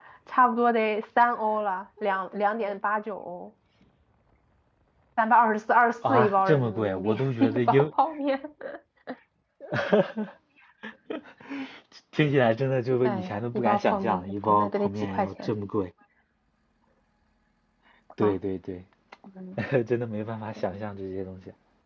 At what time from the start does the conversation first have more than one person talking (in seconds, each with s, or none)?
6.1 s